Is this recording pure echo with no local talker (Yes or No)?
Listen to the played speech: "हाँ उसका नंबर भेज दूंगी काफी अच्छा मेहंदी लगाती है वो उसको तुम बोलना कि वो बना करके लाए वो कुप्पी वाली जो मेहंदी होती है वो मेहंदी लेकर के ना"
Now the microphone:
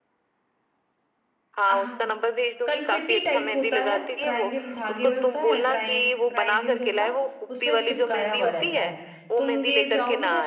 No